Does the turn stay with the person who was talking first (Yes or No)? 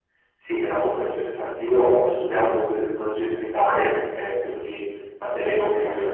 Yes